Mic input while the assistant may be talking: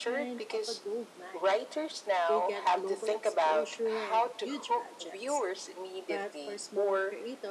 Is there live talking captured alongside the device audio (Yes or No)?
Yes